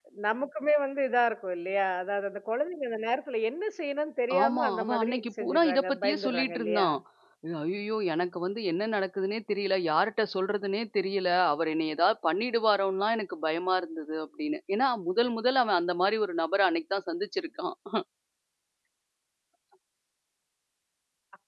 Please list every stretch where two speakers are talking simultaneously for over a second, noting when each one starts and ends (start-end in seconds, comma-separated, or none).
4.4-6.9